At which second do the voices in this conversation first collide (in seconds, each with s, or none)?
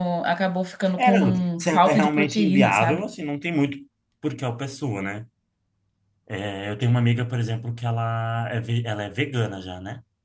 1.0 s